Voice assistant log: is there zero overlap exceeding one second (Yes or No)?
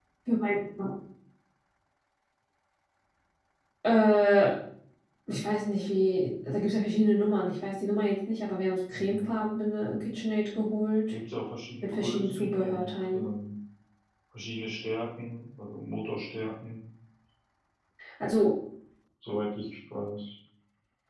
No